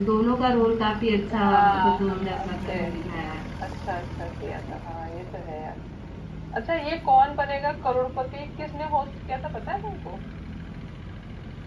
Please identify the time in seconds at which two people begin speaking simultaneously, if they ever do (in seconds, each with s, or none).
1.3 s